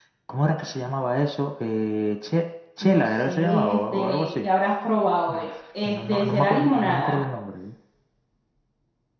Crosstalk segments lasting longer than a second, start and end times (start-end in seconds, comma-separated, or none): 2.8-4.5, 5.8-7.2